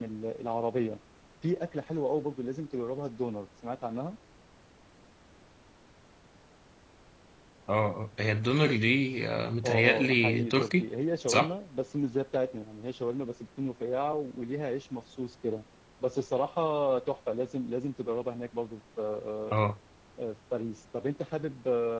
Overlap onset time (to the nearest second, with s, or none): 10 s